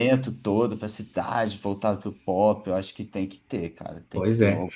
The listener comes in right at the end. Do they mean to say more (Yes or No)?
Yes